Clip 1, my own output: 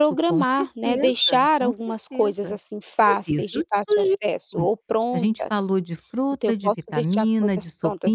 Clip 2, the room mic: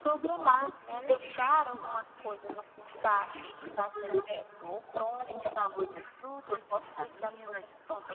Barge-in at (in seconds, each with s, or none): none